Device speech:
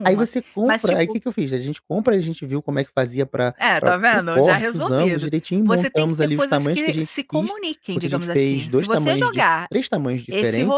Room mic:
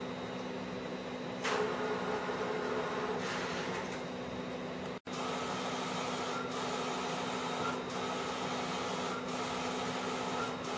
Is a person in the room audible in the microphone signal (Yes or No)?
No